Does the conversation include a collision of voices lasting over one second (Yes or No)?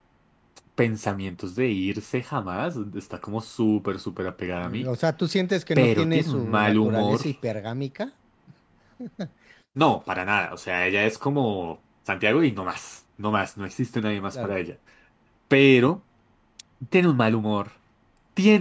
Yes